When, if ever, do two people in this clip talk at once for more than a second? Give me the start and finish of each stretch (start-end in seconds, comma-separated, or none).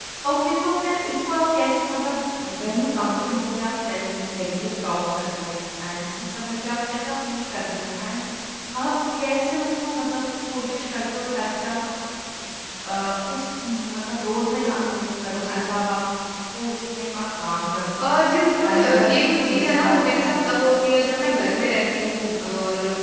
18.6-20.6